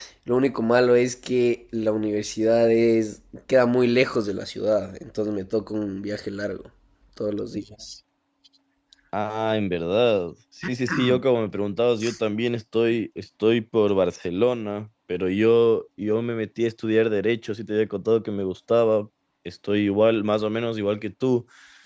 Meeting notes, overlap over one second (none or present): none